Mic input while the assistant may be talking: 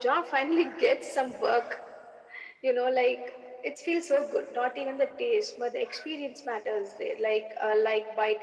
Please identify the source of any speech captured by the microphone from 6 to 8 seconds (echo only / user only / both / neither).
echo only